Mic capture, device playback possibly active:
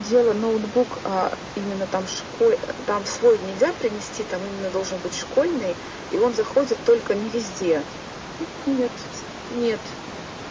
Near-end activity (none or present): none